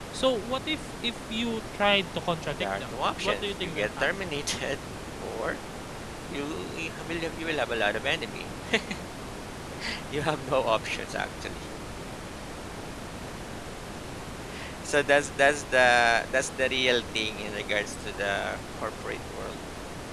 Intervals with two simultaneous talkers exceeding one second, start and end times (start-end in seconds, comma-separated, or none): 2.5-4.3